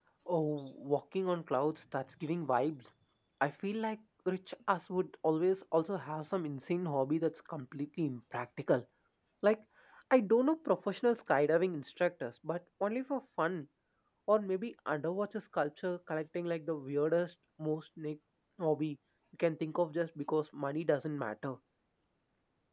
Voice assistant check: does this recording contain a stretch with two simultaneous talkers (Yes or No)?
No